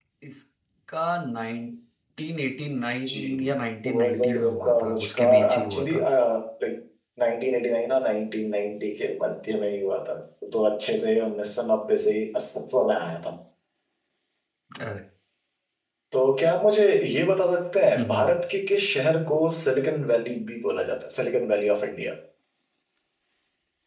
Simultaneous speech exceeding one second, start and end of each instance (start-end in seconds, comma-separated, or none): 3.9-6.0